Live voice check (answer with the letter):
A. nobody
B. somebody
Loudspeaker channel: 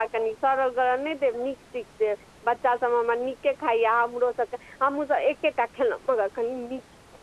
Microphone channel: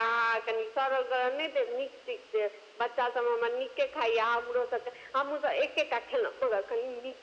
A